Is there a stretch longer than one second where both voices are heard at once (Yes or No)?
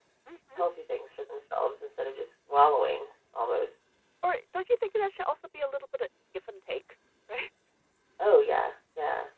No